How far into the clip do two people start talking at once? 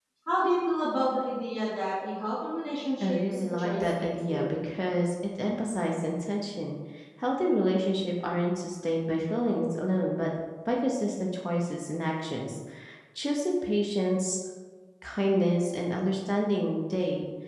3.0 s

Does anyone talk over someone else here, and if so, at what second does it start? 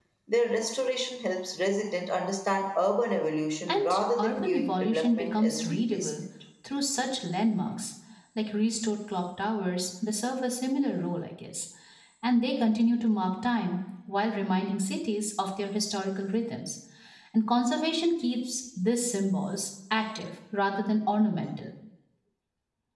3.7 s

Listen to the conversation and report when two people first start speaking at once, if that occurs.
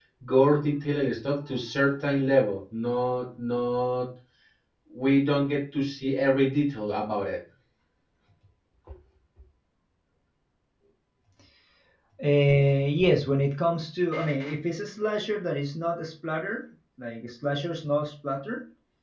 none

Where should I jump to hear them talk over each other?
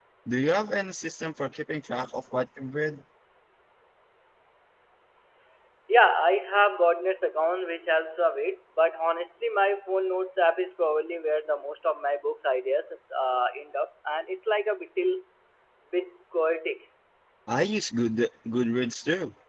none

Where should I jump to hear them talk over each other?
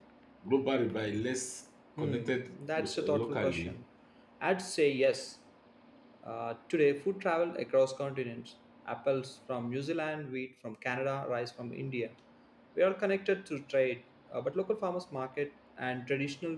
2.0 s

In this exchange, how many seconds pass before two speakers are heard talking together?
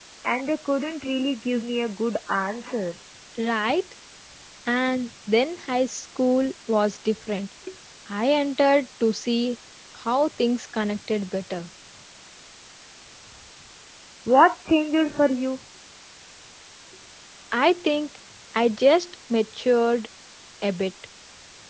none

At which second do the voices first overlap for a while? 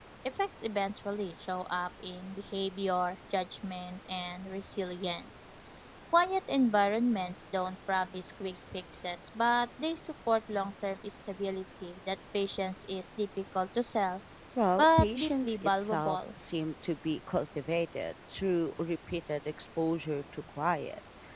14.8 s

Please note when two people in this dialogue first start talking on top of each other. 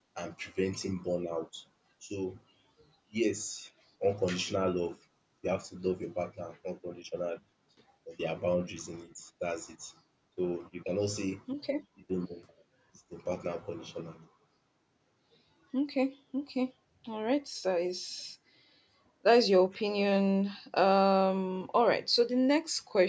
none

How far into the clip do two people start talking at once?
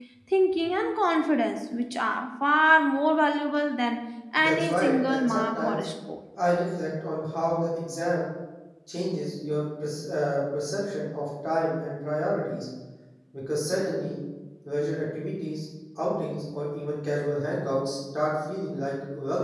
4.4 s

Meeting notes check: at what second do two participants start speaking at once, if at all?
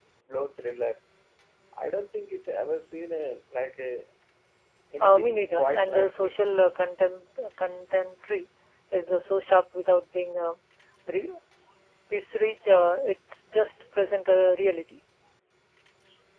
5.0 s

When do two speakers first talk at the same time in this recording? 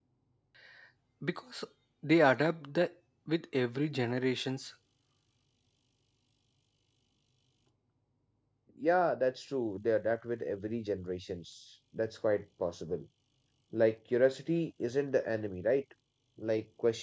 none

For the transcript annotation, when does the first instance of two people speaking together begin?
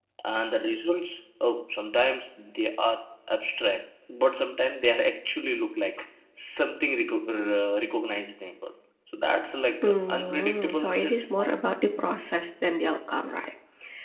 9.8 s

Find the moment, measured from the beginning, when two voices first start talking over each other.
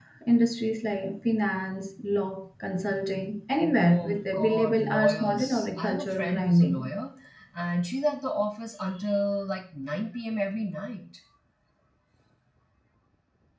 3.8 s

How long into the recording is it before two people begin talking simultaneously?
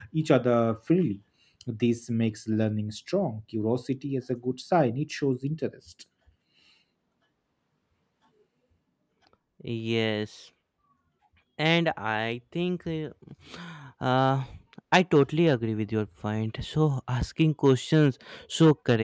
none

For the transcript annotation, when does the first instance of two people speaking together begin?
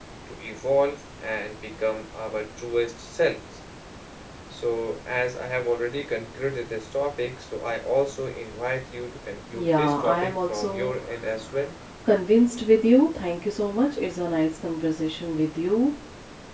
9.5 s

